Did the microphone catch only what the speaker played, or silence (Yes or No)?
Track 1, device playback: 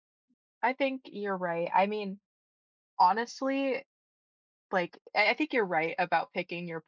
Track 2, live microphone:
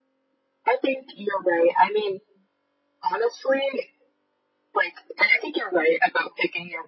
Yes